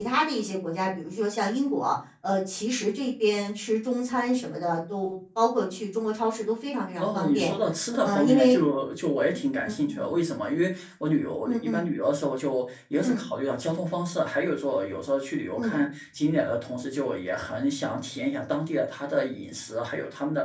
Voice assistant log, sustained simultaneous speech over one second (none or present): none